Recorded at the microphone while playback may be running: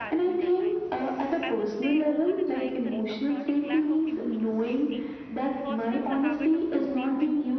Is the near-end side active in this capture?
Yes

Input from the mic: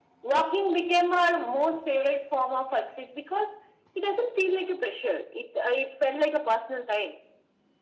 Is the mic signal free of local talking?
Yes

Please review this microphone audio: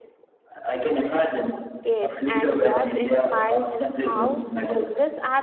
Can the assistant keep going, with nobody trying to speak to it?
No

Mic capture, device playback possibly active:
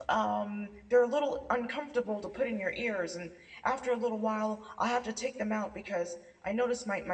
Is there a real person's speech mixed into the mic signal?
Yes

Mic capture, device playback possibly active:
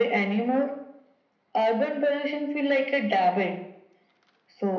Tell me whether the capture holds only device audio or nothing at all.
Yes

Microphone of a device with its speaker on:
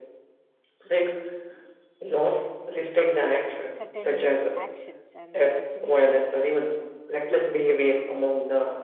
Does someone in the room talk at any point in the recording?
Yes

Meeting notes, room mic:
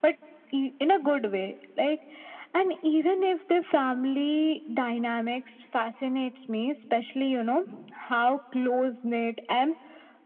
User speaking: No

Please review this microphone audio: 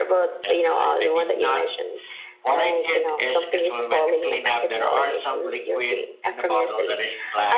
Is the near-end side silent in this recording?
No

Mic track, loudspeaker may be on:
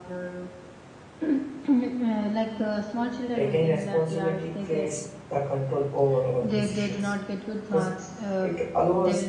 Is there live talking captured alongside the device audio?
Yes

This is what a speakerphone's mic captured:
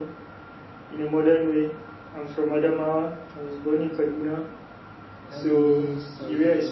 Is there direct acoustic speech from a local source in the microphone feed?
Yes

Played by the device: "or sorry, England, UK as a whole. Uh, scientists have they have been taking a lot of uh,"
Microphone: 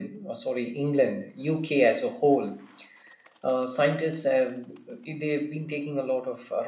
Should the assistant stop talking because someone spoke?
No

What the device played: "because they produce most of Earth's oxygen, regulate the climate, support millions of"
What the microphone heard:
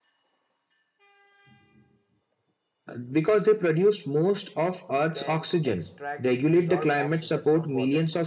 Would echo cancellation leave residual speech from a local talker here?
Yes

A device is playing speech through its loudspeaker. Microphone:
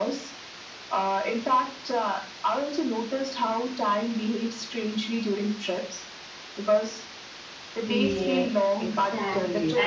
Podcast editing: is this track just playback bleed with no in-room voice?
No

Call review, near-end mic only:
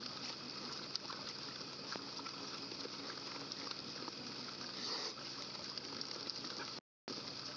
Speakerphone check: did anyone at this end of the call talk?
No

